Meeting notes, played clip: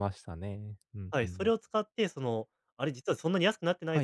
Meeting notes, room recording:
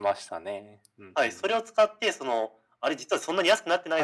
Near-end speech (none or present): none